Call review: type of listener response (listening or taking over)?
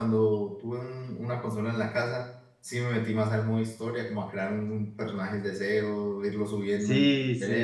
taking over